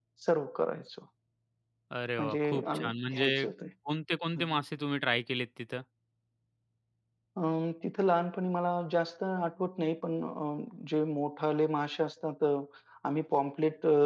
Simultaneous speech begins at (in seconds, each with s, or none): 2.2 s